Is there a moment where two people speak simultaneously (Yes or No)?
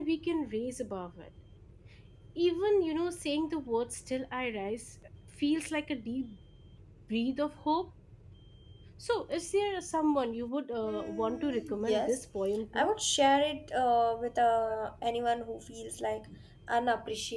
Yes